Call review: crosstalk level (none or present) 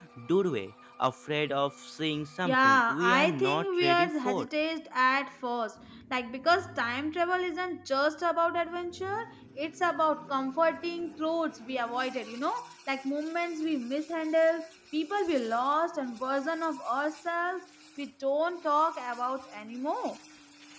present